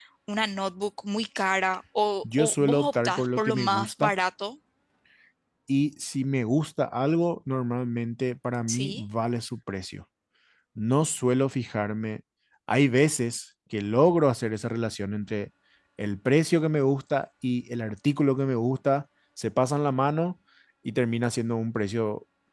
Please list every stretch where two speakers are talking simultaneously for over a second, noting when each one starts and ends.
2.4-4.1

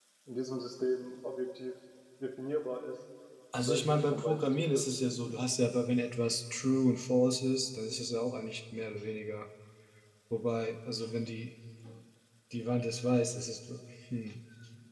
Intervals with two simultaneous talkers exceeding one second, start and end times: 3.6-4.8

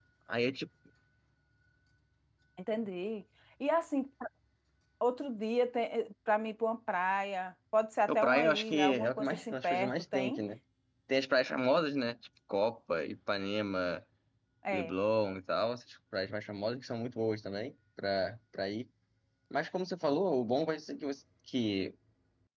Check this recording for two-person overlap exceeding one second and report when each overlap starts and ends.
8.1-10.4

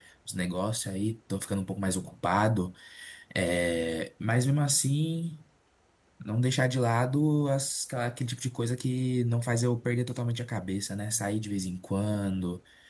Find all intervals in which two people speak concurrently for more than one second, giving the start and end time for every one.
none

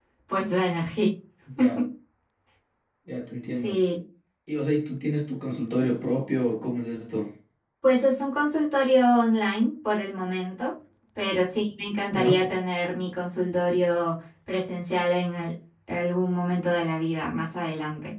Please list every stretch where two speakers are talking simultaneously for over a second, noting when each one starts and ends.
none

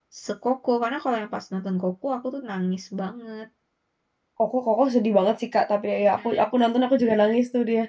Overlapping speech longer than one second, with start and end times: none

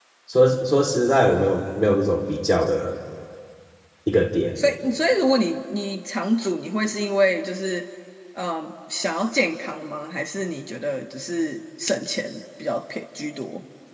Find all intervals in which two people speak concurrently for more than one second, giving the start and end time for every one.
none

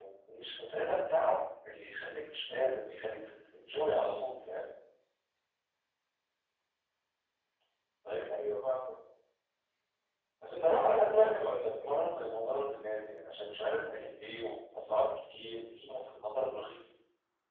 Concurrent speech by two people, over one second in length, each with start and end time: 10.5-11.9

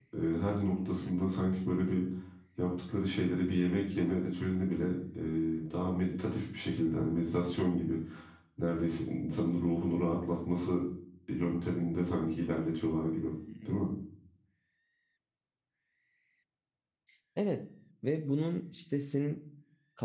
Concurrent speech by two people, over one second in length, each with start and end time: none

